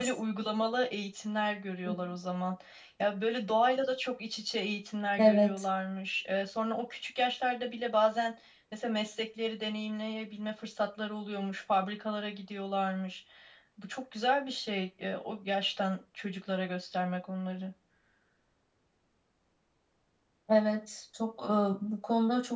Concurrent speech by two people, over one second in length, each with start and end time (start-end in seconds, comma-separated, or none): none